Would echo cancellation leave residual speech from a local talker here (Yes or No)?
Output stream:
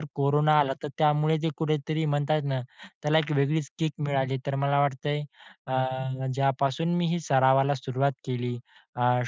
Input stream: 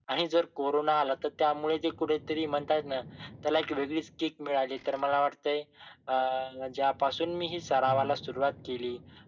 Yes